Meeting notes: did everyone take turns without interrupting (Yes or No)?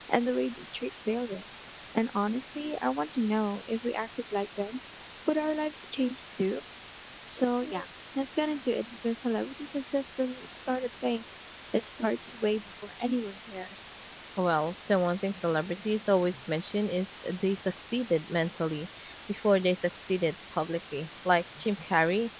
Yes